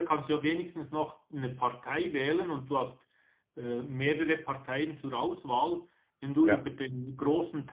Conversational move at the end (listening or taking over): listening